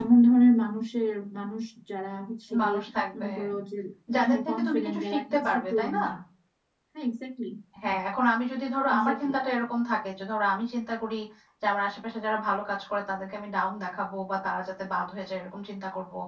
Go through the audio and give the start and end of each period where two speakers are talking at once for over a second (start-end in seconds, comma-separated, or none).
4.2-6.0